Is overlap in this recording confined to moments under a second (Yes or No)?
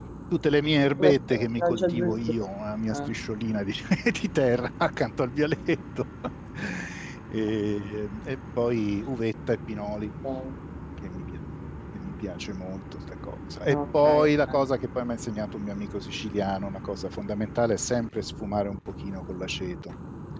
No